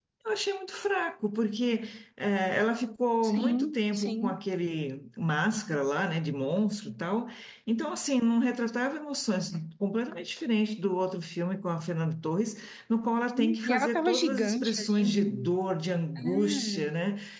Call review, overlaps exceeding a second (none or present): present